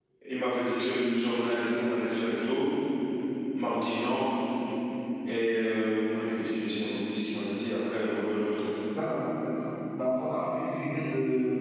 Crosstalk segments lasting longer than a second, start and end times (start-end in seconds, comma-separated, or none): none